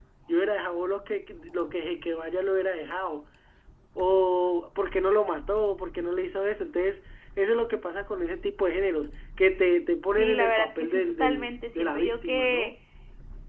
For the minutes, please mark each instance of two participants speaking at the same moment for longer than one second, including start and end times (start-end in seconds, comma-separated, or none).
10.1-12.7